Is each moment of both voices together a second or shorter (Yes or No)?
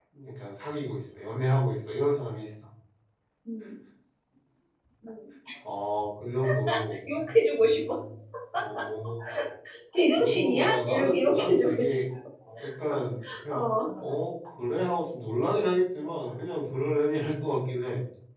No